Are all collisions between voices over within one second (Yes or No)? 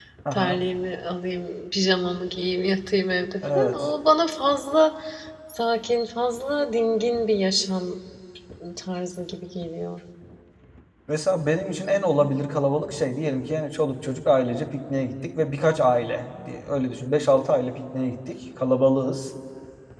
Yes